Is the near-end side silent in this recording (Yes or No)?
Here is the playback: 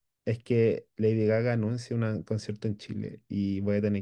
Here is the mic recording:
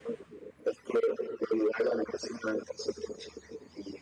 Yes